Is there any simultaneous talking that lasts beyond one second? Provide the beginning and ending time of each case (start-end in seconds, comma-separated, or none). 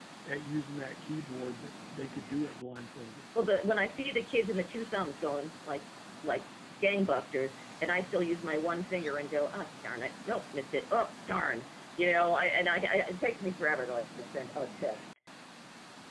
none